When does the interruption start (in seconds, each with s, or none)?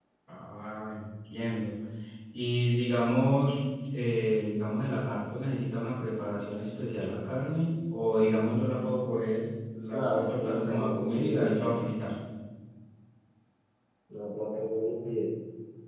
9.9 s